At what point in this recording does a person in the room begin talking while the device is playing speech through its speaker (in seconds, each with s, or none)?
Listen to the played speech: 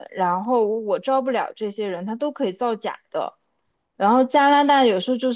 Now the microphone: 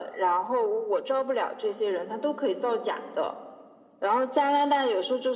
none